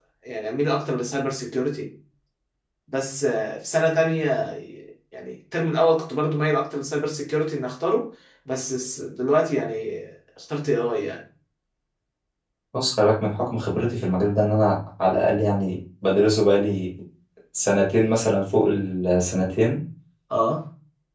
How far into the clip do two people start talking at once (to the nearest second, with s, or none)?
none